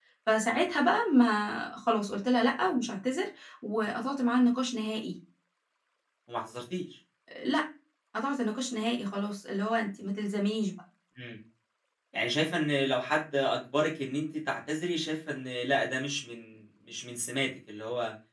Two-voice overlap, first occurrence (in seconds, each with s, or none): none